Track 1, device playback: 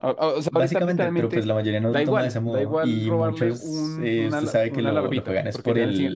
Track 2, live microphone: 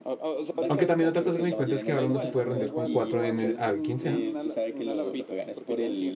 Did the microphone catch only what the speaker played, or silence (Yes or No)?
No